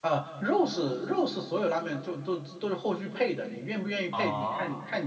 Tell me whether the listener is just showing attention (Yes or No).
Yes